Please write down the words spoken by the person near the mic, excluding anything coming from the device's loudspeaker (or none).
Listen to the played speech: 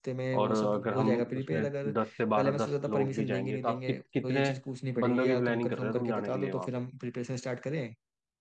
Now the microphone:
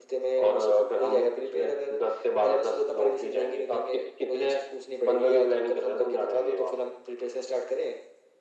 none